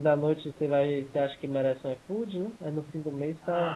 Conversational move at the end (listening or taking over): taking over